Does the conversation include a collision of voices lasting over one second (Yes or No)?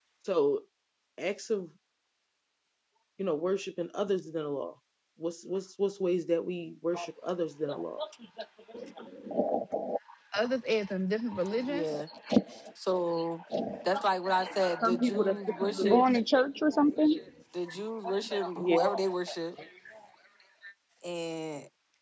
Yes